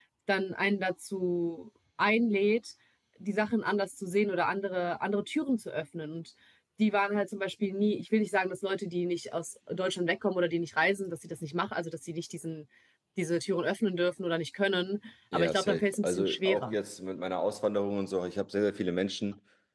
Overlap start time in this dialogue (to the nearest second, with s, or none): 15 s